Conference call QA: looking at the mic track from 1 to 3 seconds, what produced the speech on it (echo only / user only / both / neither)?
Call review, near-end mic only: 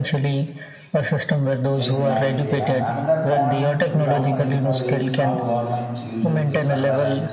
both